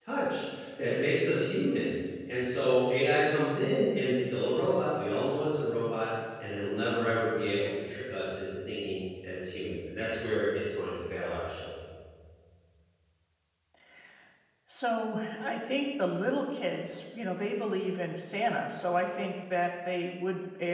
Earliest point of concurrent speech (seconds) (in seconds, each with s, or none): none